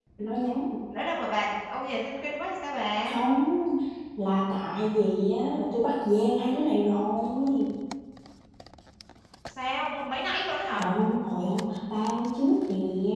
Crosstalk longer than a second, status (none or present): none